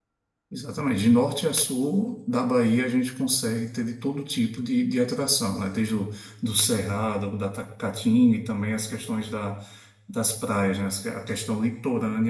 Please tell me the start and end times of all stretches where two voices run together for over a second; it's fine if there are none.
none

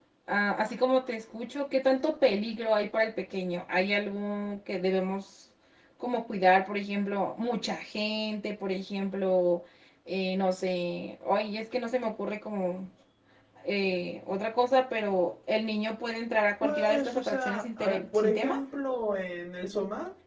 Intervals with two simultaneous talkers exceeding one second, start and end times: 16.6-18.6

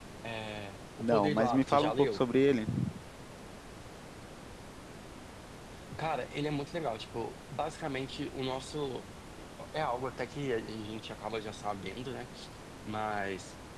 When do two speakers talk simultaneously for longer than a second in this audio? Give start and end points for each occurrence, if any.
1.0-2.2

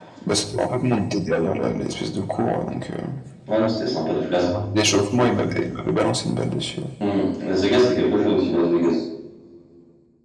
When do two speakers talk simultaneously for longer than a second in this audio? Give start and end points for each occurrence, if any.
none

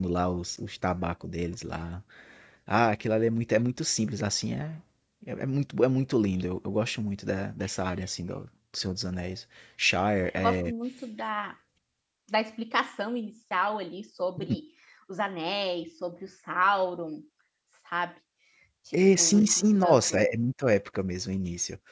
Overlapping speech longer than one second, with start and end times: 18.9-20.2

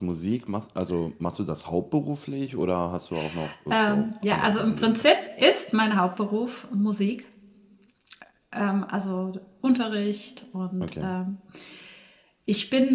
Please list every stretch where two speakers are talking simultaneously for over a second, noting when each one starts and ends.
3.7-5.1

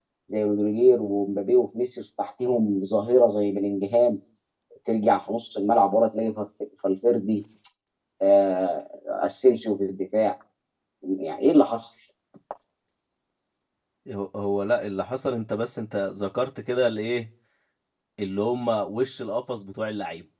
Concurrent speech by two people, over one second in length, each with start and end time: none

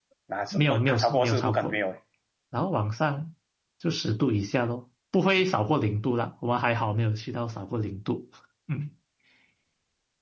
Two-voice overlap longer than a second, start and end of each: 0.5-1.8

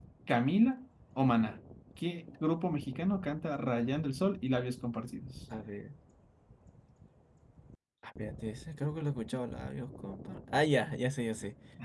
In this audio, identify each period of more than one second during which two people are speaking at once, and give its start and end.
none

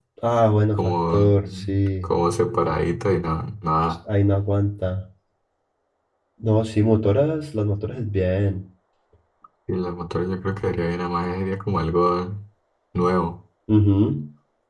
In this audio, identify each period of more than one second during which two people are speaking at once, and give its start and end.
0.7-2.1

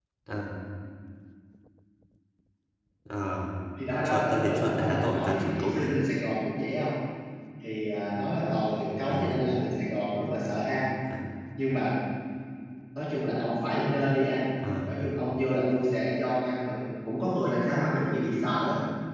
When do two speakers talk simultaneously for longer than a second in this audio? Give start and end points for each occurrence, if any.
4.0-5.9

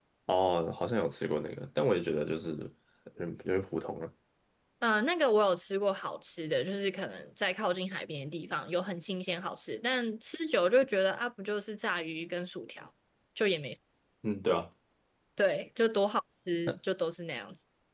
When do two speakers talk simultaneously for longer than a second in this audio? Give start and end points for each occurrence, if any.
none

